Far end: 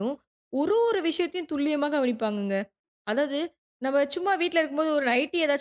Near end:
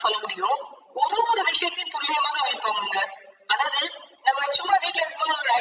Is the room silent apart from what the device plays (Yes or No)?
Yes